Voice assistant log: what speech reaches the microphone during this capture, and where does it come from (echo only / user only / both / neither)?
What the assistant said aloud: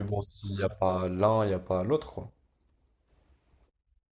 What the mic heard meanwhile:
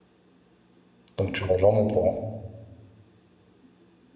user only